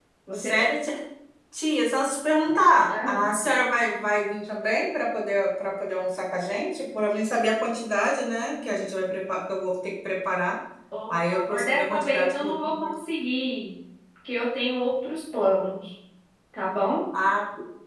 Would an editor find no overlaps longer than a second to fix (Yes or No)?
No